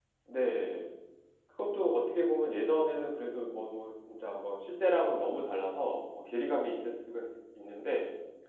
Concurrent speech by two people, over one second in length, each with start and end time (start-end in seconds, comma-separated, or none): none